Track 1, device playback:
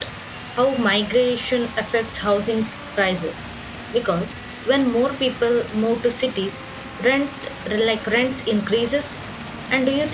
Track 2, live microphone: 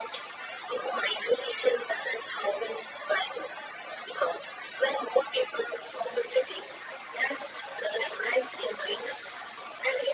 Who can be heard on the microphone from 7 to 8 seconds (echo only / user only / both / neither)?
echo only